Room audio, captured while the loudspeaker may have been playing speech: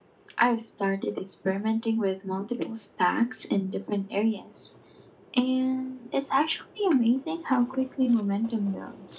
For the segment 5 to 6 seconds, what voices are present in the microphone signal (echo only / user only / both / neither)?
echo only